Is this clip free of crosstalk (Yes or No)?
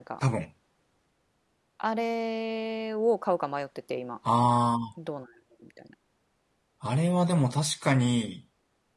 Yes